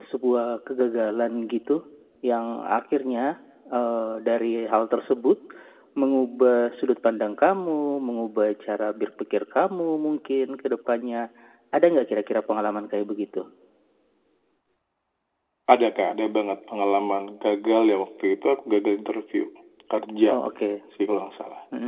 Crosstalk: none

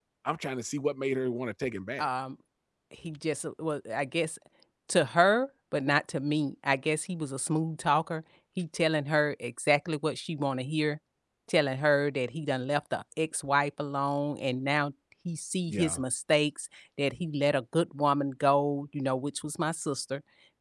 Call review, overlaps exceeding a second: none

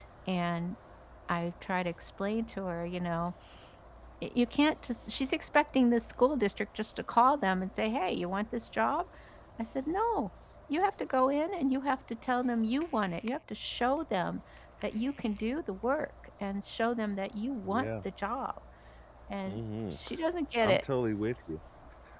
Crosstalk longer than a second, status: none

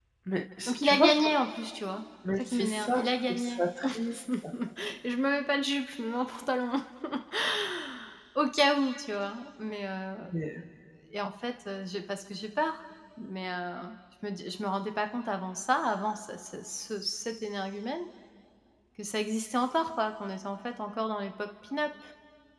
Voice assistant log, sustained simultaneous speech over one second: present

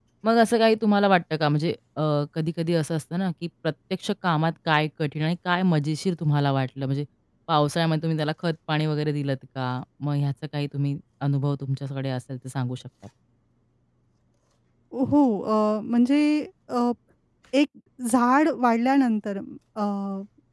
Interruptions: none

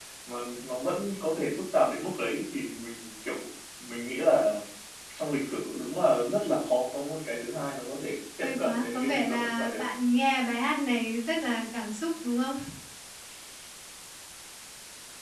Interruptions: present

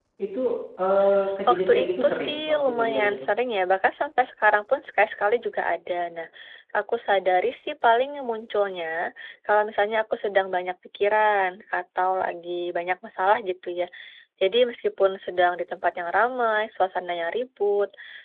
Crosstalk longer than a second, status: present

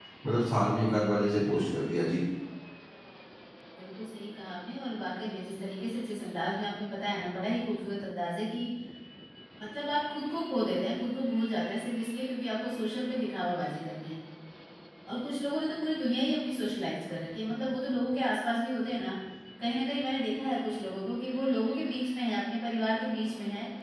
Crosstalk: none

